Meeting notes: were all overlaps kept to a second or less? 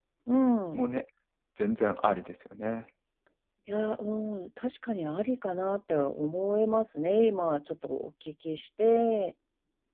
Yes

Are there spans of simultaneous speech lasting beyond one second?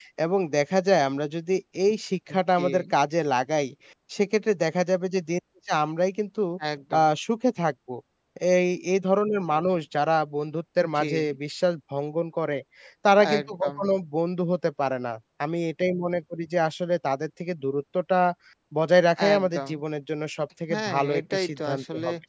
Yes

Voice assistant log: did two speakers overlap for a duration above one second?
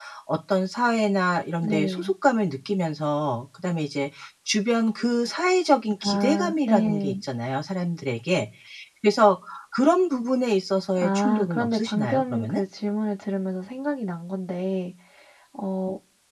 Yes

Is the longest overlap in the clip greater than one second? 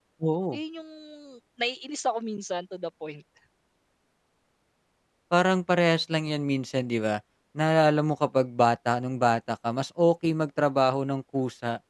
No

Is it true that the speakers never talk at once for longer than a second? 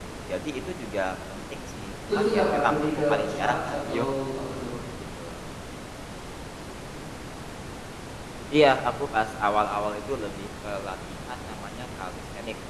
No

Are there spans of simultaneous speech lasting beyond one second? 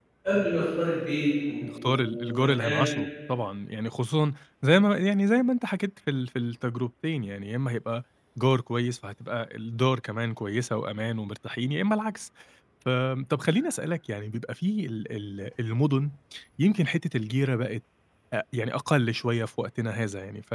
Yes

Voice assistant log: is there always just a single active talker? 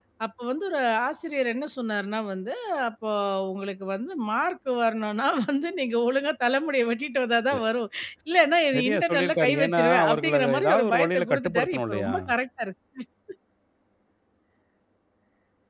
No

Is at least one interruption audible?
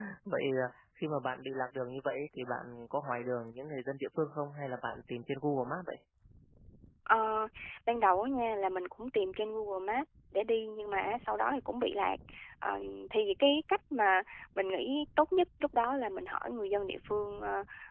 No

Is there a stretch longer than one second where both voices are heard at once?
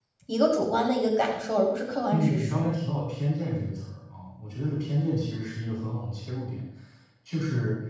No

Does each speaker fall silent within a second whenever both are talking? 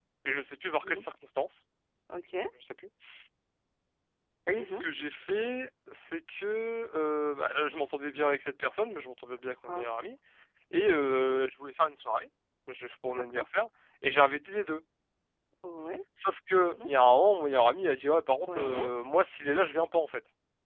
Yes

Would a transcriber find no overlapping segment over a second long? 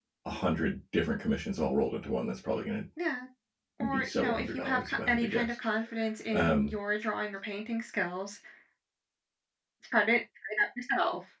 No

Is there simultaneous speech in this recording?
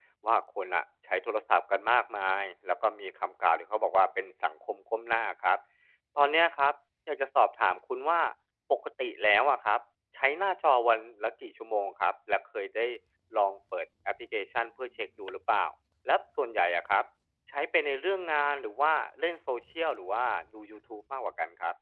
No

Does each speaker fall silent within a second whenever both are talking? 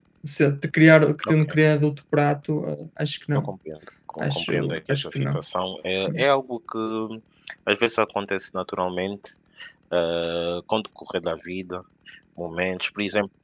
No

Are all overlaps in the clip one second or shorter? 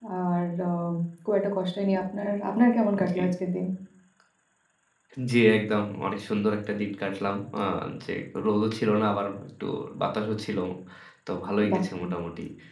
Yes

